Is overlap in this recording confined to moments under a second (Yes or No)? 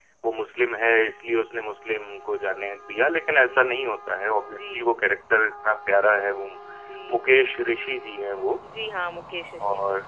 Yes